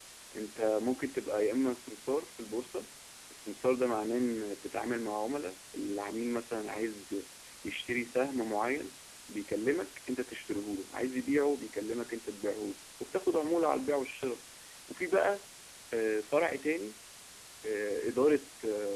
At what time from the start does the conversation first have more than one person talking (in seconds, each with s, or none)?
none